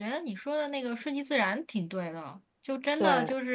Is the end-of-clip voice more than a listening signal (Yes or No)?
No